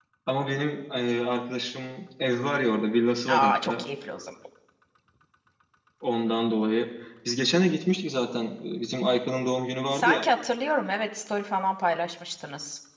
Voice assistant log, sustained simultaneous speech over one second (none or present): none